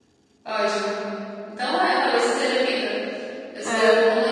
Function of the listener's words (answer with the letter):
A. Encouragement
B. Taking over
A